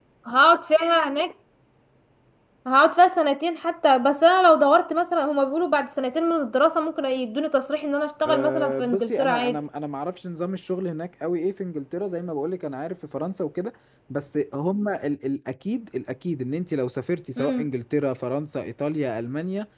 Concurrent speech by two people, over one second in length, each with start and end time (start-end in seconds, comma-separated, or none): 8.2-9.6